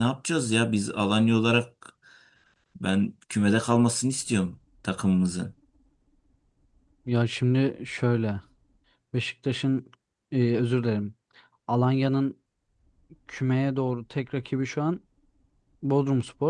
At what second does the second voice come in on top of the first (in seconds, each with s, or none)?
none